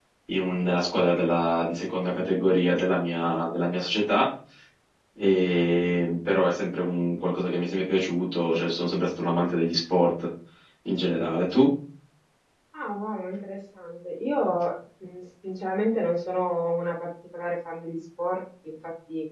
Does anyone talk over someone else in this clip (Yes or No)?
No